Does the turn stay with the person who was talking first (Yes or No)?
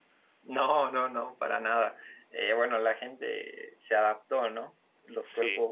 Yes